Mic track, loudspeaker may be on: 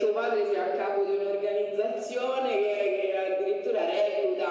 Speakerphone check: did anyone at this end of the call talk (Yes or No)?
No